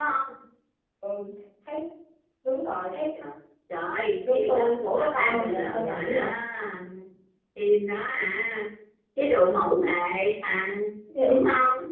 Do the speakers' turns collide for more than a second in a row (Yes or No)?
Yes